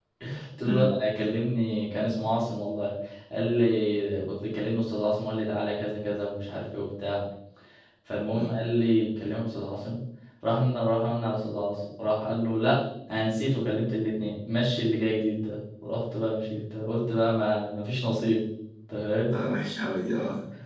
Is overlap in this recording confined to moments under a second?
Yes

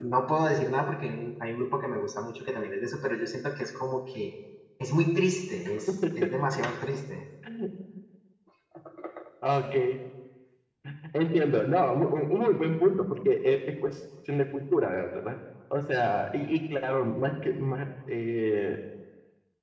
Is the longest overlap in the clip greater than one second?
No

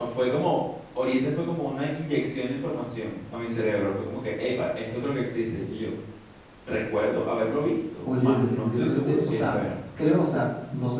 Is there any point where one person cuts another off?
Yes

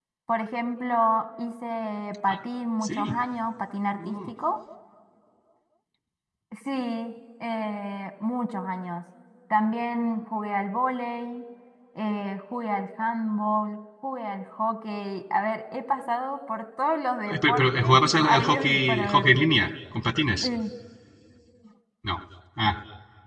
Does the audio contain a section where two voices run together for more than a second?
Yes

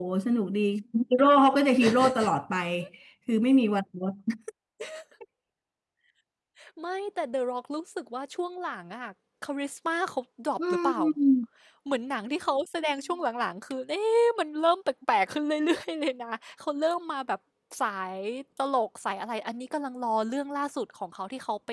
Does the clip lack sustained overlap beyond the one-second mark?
Yes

